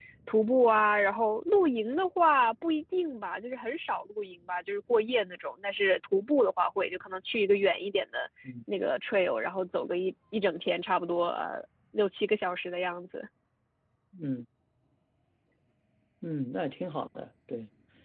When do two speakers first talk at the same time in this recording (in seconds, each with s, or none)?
none